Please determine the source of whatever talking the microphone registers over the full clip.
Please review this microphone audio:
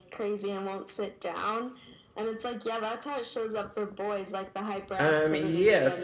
both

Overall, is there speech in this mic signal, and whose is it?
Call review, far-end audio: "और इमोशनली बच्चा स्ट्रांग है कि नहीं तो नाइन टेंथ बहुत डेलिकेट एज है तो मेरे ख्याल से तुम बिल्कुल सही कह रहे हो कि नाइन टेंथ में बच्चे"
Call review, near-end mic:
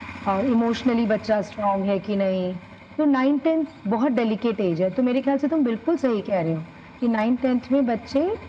echo only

